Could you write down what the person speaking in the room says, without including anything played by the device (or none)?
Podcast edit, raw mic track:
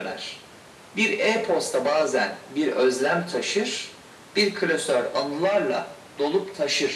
none